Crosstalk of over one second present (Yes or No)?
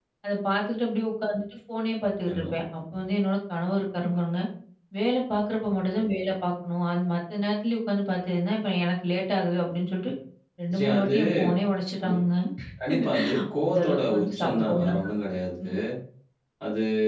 Yes